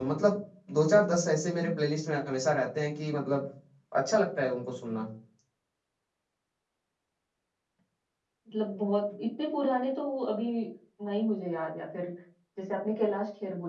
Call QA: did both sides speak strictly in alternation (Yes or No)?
Yes